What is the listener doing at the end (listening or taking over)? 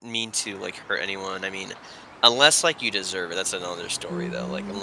taking over